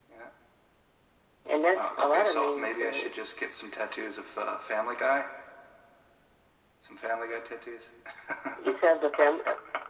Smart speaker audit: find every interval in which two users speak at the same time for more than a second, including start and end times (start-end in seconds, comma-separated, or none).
1.7-3.1